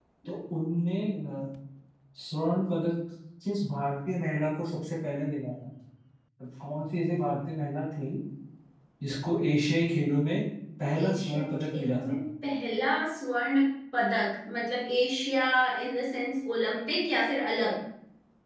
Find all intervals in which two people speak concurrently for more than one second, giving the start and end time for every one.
11.0-12.2

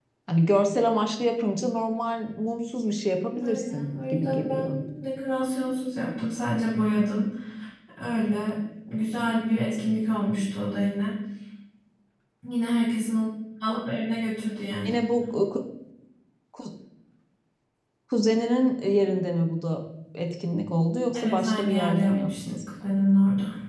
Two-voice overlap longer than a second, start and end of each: 3.4-4.8, 21.1-22.6

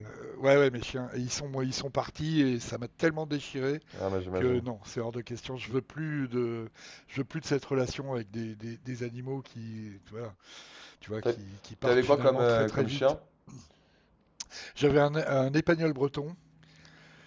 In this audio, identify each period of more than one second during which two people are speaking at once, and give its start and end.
11.8-13.2

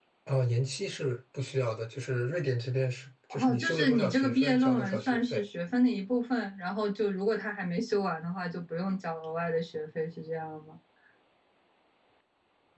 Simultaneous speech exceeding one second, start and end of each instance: 3.3-5.4

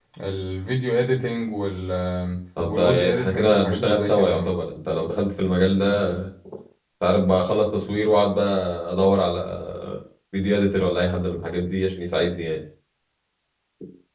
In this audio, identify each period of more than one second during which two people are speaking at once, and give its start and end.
2.7-4.5

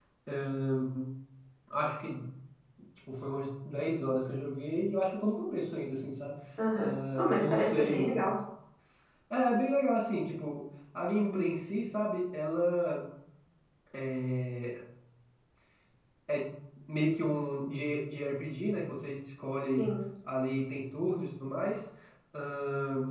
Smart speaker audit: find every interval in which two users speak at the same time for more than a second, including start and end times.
6.8-8.1

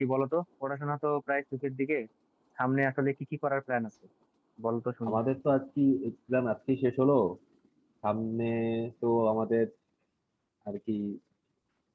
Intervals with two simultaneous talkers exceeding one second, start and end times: none

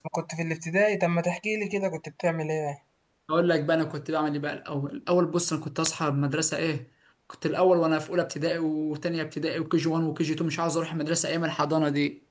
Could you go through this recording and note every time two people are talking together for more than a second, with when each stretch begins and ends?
none

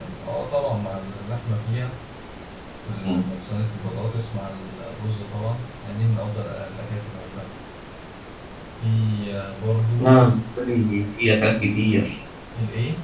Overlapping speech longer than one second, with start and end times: none

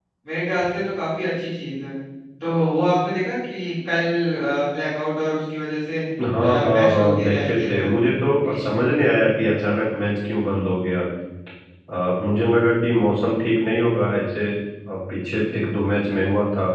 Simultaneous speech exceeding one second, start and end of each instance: 6.4-7.9

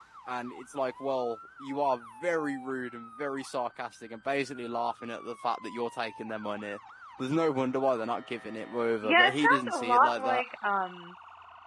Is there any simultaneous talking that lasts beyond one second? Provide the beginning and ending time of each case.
9.0-10.4

